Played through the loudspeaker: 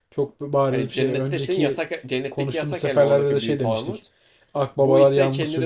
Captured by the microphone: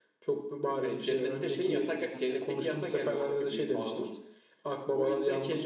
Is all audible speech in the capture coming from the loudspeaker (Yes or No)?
No